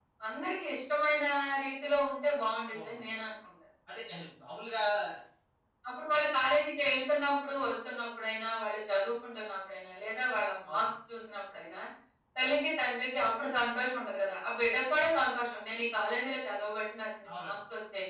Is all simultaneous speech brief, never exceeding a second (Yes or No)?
Yes